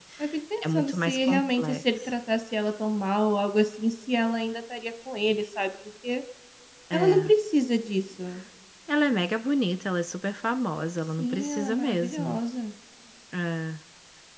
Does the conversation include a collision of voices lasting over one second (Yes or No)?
Yes